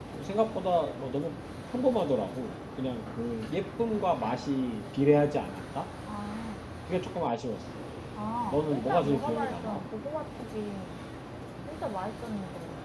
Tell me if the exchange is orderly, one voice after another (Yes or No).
No